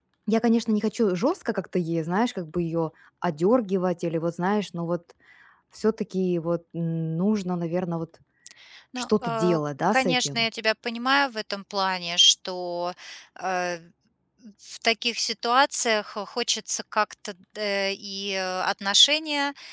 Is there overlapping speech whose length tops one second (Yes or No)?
Yes